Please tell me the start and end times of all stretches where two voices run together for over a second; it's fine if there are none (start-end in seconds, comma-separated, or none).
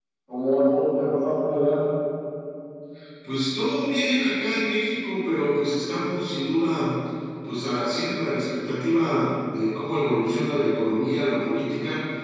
none